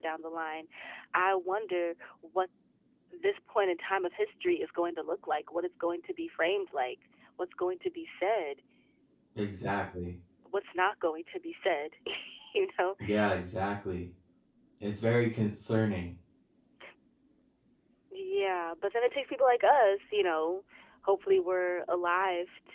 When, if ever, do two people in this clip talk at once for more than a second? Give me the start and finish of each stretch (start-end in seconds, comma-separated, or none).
none